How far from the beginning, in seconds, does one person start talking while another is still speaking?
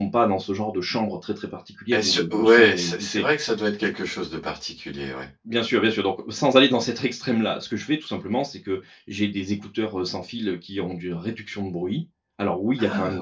1.9 s

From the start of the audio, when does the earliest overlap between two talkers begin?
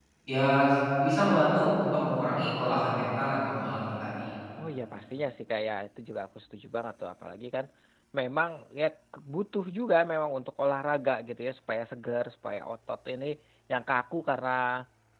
none

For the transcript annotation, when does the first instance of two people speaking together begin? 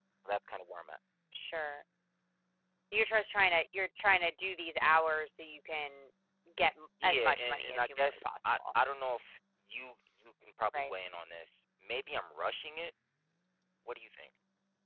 7.0 s

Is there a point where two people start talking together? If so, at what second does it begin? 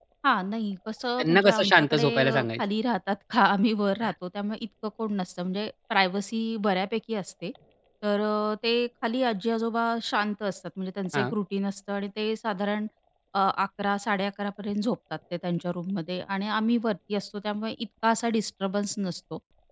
1.2 s

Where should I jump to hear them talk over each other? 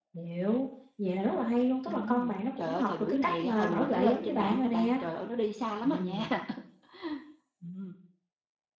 1.9 s

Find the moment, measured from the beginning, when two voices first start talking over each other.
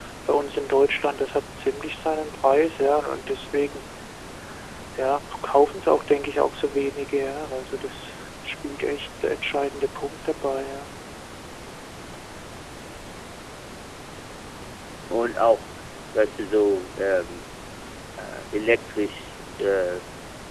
none

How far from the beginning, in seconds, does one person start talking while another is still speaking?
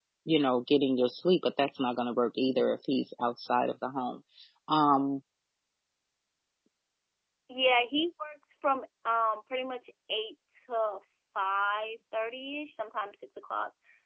none

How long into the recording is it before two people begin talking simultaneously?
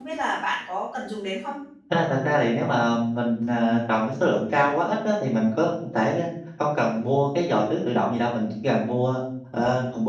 none

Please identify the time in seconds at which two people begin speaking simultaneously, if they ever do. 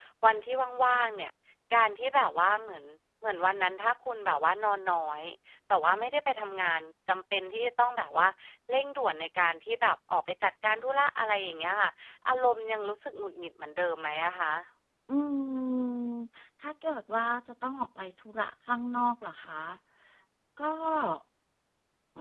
none

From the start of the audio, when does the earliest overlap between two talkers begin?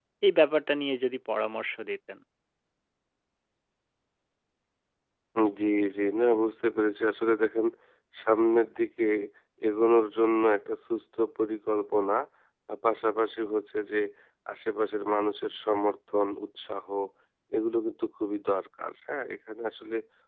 none

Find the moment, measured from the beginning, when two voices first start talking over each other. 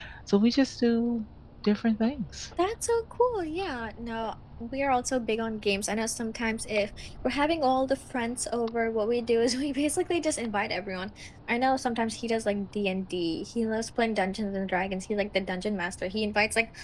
none

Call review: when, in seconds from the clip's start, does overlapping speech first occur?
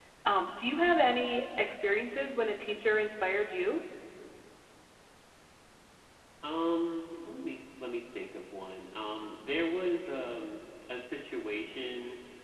none

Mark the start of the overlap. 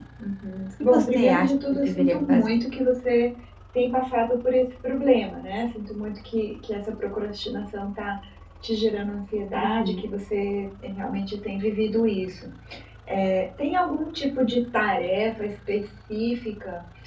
0.8 s

